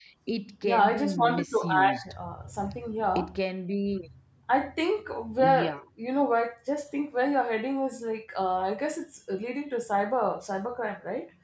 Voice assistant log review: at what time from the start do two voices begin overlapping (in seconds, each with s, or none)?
0.6 s